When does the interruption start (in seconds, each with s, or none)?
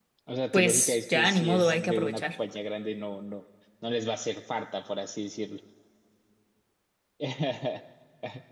0.5 s